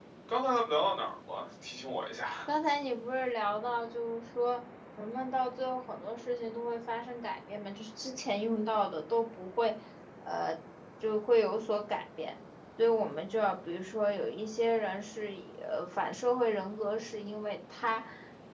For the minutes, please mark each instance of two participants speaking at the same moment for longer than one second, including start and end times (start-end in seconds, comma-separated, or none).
none